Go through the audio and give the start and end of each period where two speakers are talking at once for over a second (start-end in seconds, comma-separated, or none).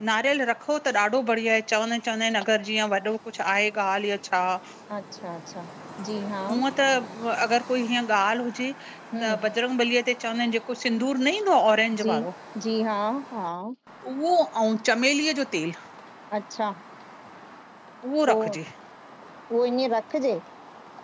none